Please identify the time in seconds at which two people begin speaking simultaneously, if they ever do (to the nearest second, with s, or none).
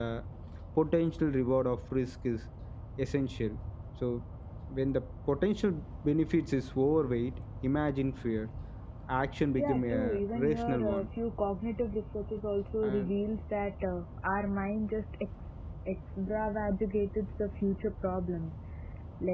10 s